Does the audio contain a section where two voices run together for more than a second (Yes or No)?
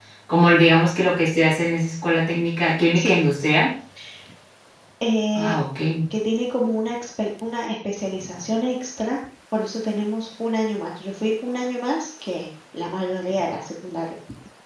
No